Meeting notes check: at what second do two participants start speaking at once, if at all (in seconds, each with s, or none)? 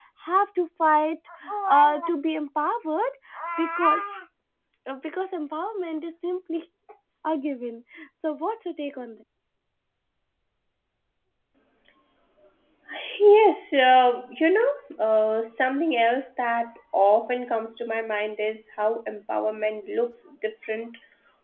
none